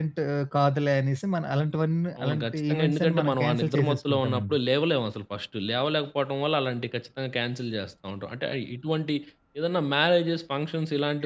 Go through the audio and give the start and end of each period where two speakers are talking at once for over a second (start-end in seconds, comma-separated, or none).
2.2-4.6